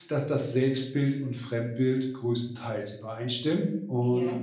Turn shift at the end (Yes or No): No